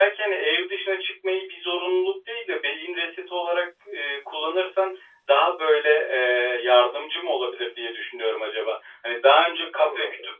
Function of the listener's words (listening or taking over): listening